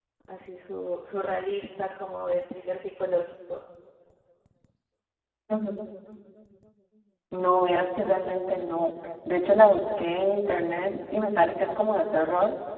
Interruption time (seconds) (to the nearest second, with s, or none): none